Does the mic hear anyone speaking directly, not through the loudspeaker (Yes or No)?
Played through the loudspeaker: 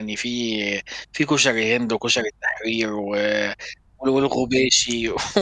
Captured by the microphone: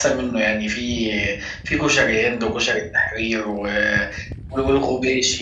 No